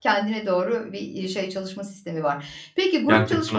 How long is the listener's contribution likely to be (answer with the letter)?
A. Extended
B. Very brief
B